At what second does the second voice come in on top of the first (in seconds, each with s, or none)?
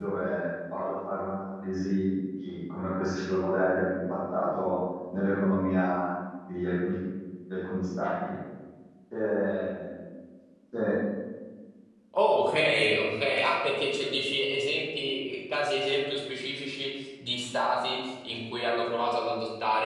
none